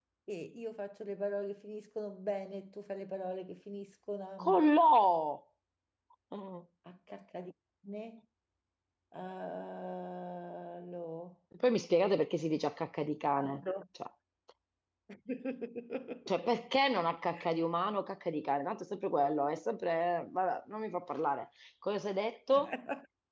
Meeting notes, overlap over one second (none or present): none